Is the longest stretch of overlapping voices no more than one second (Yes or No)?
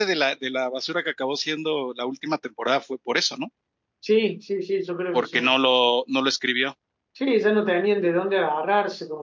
Yes